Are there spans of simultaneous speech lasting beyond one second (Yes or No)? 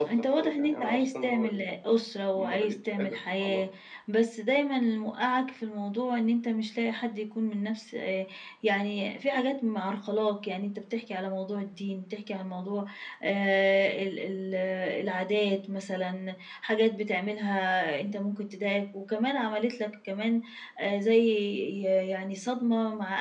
Yes